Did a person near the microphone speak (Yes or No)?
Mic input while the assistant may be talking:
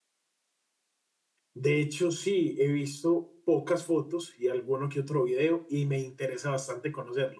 Yes